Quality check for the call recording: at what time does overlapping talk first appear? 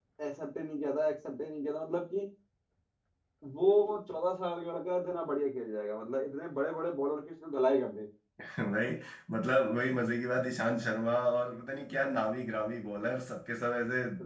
none

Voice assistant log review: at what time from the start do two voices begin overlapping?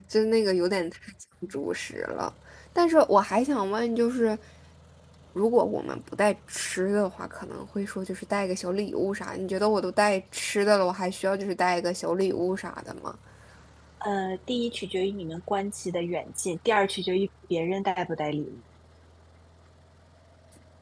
none

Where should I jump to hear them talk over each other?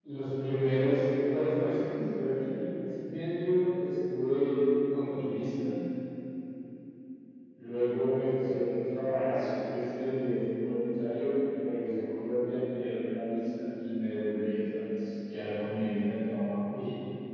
0.8 s

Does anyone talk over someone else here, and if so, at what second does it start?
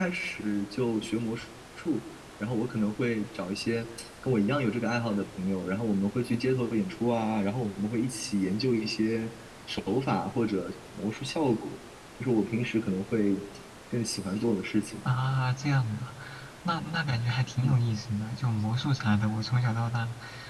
none

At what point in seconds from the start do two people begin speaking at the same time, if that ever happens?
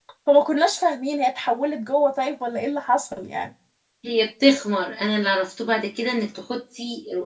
none

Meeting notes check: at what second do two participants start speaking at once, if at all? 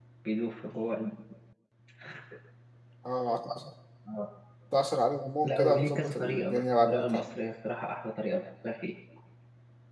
5.4 s

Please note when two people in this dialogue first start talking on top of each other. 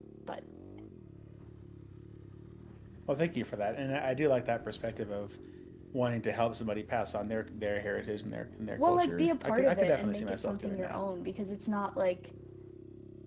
8.8 s

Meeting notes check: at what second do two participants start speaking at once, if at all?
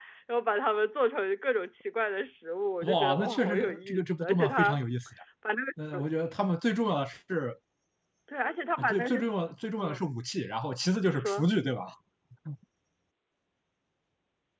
2.8 s

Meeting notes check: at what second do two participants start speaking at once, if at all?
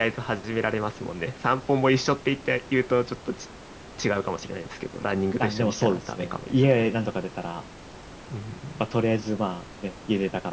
5.4 s

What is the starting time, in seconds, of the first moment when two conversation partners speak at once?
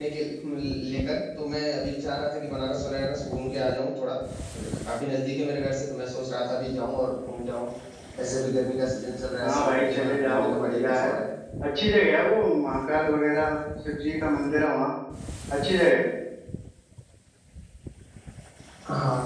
9.4 s

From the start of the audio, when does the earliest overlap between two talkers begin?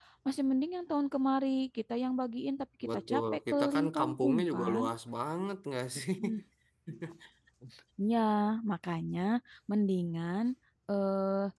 3.1 s

